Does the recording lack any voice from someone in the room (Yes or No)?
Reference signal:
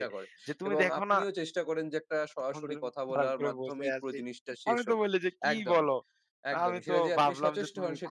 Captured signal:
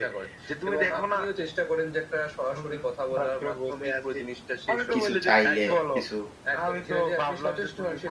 No